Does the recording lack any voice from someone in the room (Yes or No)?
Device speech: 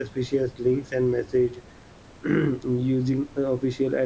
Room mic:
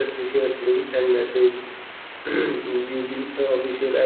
Yes